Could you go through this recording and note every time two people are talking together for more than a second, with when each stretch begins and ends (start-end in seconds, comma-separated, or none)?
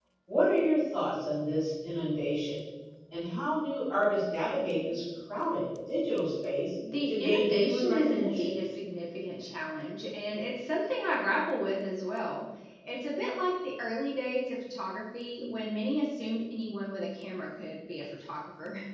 7.1-8.5